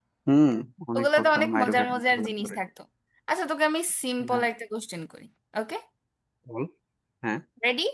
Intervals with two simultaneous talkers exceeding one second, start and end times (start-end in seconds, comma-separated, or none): 1.0-2.6